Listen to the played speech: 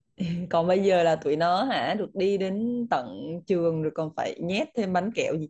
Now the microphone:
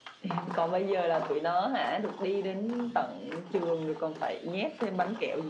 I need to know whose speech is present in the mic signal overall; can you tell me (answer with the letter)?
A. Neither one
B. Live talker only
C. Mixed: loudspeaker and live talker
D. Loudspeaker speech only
D